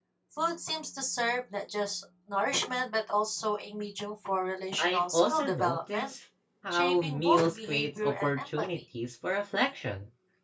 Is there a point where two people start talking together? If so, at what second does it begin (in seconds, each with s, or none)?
4.8 s